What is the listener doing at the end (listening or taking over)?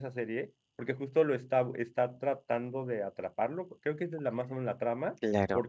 listening